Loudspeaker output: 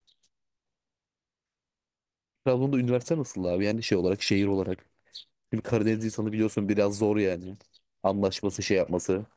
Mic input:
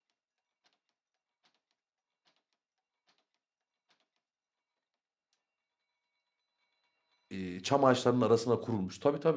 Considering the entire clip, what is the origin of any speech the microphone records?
user only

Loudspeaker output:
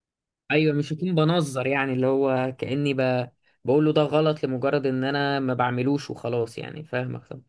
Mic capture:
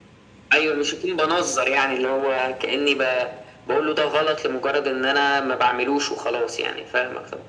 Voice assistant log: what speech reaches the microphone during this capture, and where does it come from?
echo only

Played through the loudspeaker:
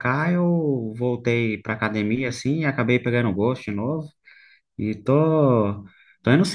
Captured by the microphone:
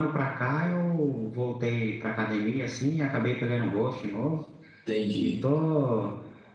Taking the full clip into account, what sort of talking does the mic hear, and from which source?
both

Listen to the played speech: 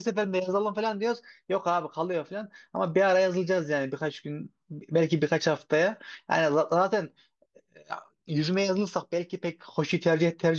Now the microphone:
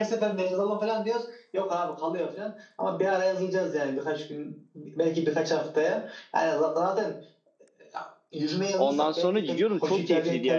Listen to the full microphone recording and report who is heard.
both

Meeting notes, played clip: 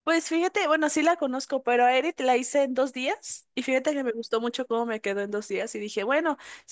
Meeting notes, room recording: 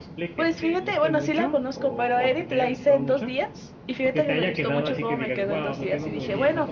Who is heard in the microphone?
both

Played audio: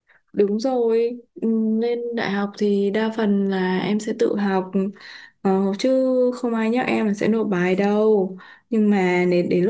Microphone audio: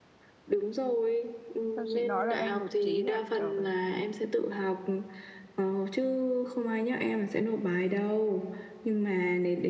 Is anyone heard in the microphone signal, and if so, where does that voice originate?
both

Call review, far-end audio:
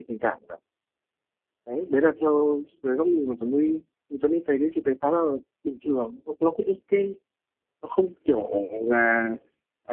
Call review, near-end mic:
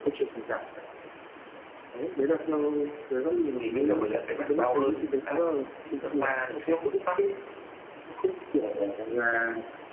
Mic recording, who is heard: both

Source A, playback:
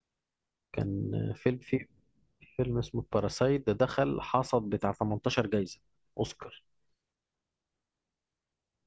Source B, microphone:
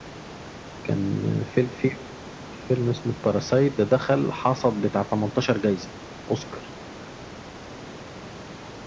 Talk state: echo only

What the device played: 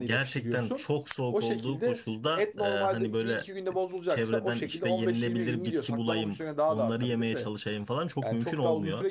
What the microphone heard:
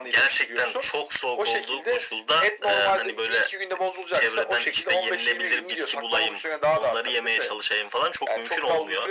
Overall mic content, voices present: echo only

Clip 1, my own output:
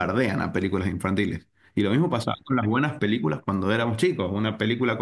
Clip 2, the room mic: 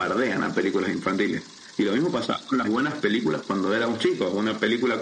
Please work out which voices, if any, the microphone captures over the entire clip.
echo only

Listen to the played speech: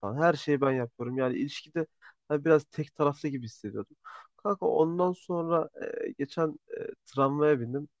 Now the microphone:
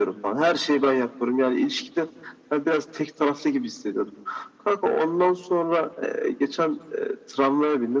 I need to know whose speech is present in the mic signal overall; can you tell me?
echo only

